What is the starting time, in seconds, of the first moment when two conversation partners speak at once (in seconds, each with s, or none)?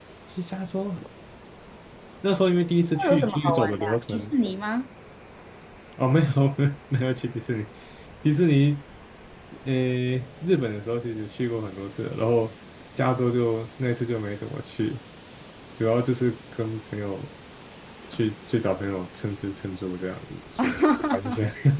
3.0 s